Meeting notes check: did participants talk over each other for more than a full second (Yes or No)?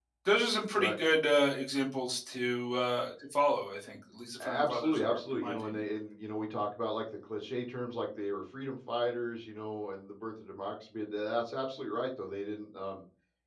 Yes